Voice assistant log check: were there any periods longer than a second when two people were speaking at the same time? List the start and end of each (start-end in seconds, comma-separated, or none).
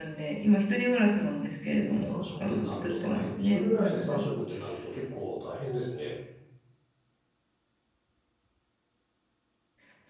2.0-4.3